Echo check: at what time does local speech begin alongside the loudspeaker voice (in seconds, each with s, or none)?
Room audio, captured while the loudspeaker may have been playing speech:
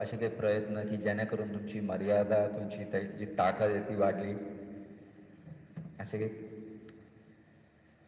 none